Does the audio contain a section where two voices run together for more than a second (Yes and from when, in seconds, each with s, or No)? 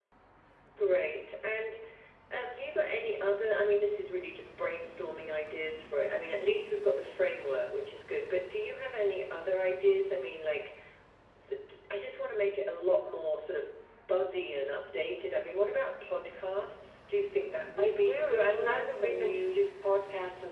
Yes, from 17.8 s